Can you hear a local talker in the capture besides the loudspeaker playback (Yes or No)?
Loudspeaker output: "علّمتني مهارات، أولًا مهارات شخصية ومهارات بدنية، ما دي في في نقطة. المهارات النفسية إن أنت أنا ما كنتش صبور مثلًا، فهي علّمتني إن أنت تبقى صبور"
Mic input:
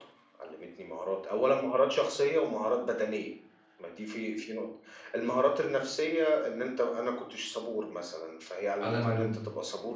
Yes